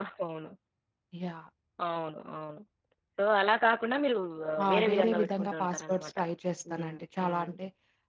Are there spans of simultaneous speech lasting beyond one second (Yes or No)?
Yes